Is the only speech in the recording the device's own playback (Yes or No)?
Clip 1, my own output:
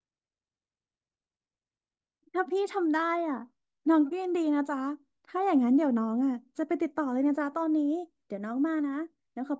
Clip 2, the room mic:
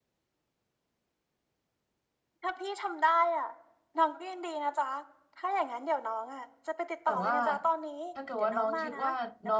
No